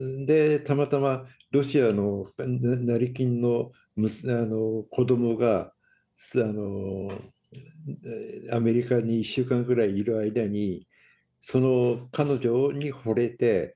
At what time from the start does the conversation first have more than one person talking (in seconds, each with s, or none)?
none